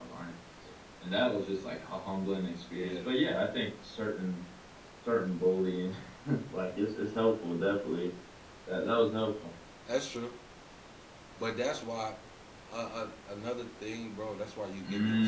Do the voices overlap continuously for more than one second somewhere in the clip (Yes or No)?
No